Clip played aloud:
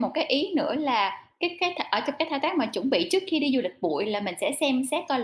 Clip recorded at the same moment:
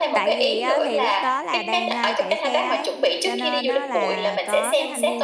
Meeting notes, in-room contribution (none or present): present